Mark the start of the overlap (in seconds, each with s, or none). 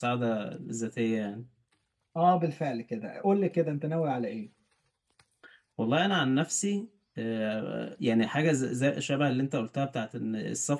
none